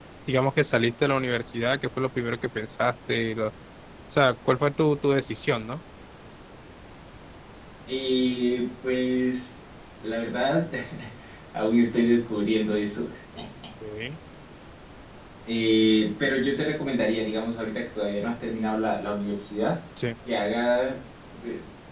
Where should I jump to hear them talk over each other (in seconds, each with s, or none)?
none